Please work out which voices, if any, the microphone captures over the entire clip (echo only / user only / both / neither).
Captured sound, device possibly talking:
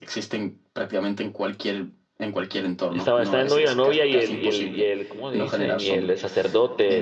both